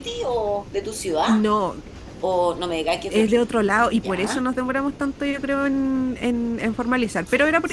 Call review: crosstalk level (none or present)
present